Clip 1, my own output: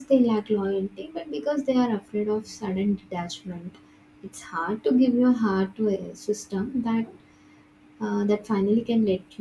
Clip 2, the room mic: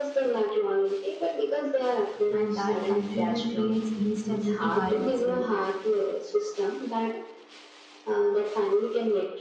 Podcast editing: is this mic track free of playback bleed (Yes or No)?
No